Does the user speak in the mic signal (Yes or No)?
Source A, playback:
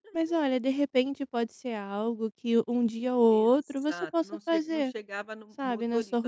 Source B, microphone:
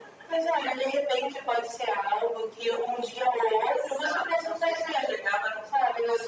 No